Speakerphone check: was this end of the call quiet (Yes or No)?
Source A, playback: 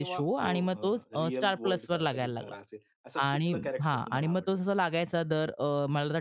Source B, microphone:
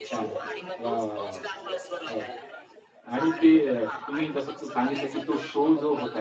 No